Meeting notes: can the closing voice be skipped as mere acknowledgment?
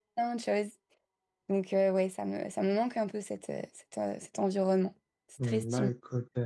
No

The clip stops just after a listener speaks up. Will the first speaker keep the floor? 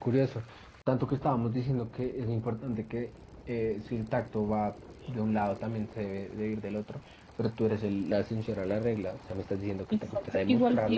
No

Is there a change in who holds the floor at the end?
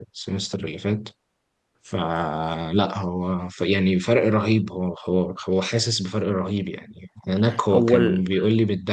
No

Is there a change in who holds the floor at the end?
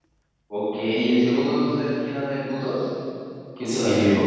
Yes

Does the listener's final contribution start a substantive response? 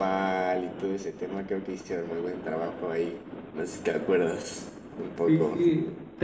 Yes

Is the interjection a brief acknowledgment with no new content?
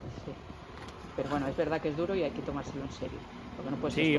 No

